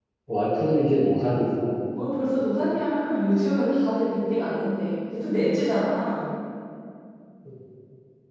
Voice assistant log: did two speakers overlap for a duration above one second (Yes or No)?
No